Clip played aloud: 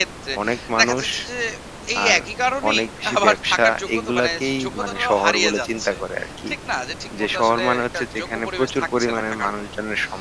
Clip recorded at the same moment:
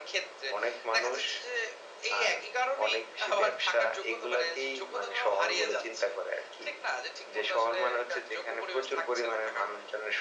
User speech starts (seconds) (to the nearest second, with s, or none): none